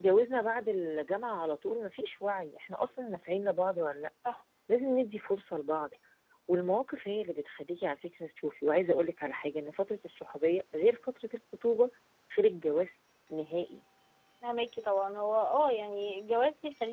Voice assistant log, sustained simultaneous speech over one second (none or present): none